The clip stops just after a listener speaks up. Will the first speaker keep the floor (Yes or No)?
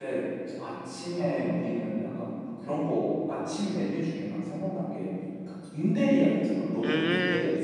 No